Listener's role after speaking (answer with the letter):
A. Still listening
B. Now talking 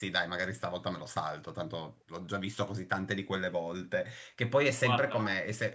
A